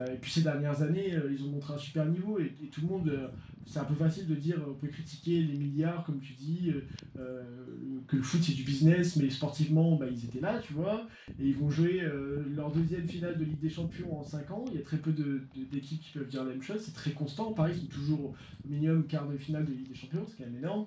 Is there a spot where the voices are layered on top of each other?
No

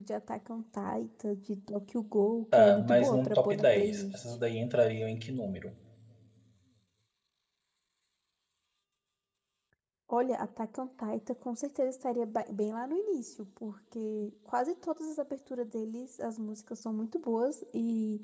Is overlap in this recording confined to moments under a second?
No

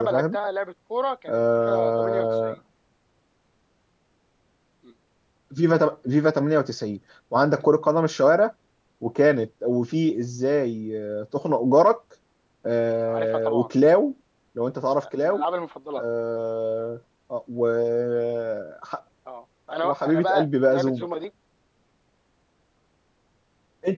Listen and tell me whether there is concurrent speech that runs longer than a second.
Yes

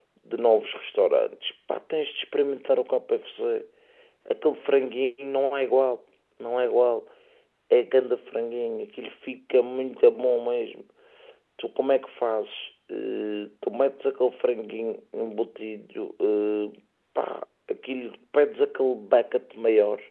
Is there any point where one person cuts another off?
No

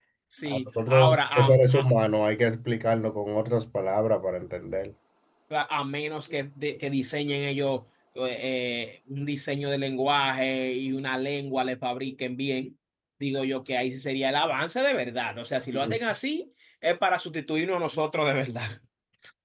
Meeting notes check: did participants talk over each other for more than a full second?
Yes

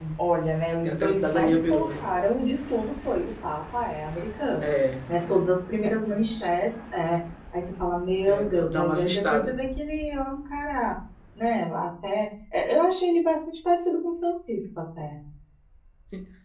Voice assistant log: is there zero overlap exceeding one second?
No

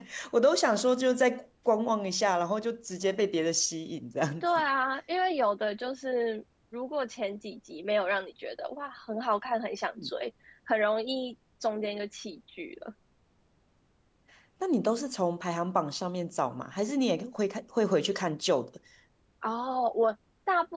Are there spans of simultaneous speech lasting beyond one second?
No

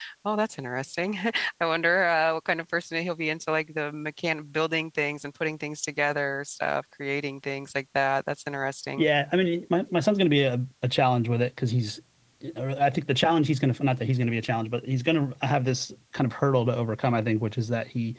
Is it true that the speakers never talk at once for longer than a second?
Yes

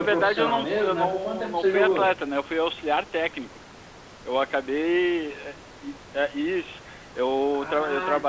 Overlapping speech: Yes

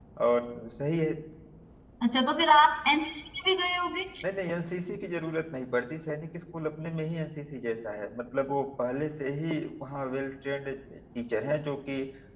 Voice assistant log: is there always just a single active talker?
Yes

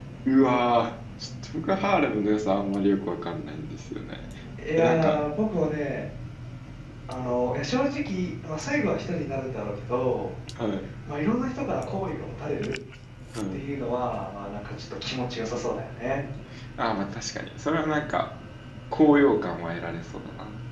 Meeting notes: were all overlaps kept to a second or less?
Yes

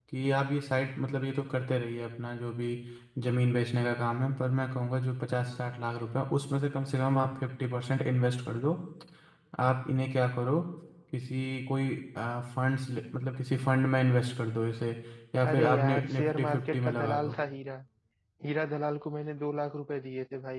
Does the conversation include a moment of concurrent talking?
Yes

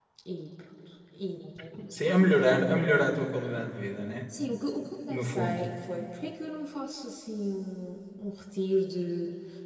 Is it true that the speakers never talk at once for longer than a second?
Yes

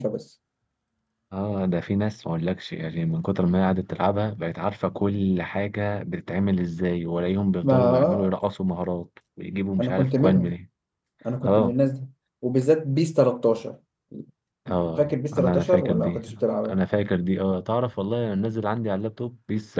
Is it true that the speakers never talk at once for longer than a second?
No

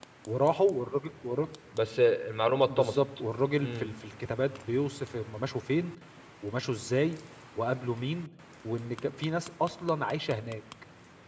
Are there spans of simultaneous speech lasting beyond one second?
No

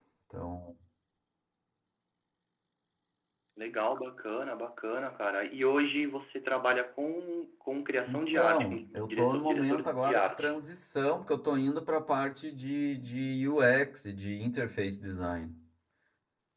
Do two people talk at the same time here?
Yes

